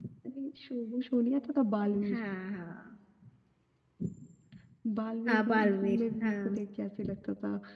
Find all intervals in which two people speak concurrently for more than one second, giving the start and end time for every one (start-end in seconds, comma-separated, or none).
5.3-6.5